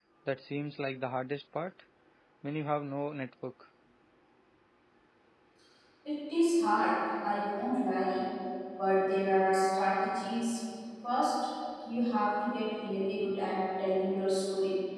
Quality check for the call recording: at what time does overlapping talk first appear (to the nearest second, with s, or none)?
none